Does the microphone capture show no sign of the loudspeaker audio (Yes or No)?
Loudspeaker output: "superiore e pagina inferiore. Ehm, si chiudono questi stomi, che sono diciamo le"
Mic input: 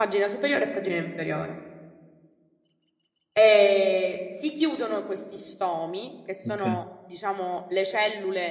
No